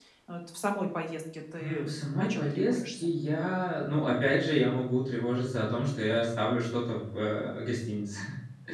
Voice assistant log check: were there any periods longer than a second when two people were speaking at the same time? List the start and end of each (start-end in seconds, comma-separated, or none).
1.6-3.1